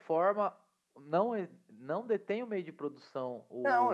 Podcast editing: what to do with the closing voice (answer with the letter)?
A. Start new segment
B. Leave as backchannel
A